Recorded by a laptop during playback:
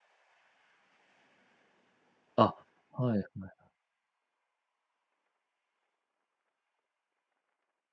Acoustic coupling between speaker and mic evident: No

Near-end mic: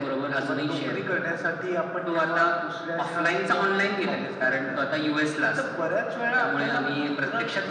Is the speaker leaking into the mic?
Yes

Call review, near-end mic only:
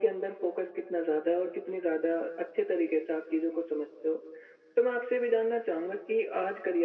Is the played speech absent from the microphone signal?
No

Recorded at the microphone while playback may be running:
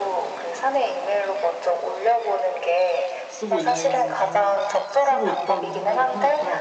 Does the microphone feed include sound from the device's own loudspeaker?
Yes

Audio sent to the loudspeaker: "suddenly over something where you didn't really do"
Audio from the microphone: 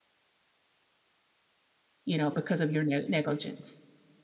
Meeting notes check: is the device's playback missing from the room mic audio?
Yes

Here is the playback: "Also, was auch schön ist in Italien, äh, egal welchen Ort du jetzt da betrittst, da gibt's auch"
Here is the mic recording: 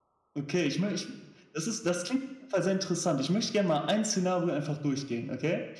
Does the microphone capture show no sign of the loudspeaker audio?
Yes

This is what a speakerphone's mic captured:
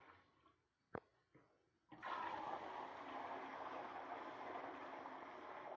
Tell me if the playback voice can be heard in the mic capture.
No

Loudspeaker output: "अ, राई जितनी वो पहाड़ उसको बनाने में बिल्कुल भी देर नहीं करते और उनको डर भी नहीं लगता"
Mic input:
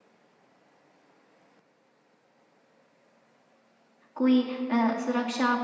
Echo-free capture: Yes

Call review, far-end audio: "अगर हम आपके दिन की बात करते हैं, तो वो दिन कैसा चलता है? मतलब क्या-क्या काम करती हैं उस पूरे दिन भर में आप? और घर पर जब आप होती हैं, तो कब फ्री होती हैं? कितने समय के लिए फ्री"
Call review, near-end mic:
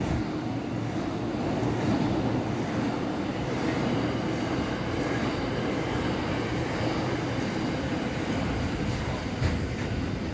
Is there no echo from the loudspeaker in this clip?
Yes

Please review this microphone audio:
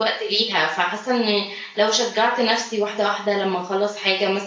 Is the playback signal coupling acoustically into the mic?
No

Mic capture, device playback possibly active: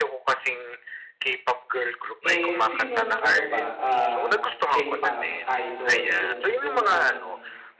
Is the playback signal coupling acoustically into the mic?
Yes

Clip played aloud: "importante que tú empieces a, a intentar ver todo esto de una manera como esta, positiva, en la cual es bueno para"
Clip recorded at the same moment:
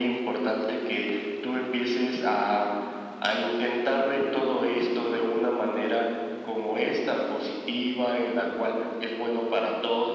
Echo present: Yes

